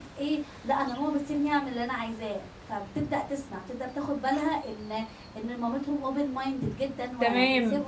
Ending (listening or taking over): taking over